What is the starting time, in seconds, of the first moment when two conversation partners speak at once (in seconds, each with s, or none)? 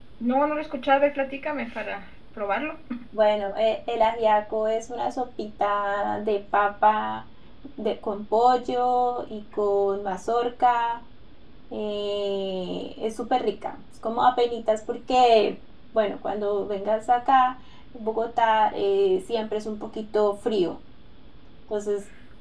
none